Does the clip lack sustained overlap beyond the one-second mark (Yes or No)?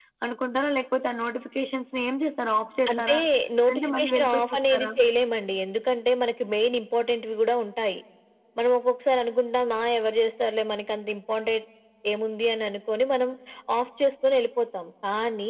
No